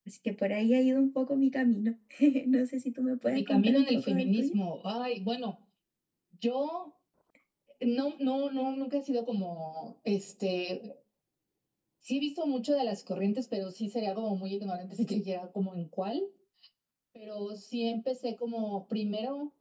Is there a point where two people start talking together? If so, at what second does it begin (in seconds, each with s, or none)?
3.2 s